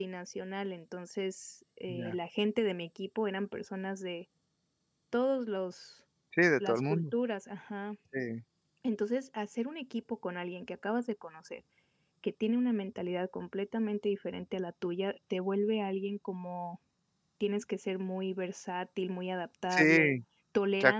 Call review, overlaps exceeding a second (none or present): none